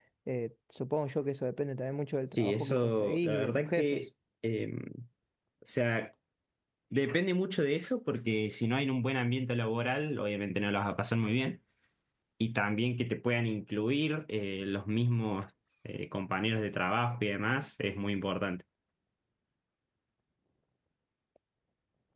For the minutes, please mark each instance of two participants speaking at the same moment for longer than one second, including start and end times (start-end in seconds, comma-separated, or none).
2.3-4.0